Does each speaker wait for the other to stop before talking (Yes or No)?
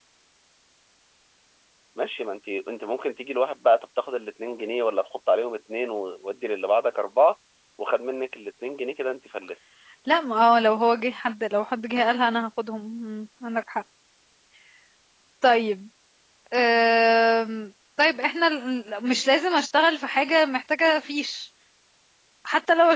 Yes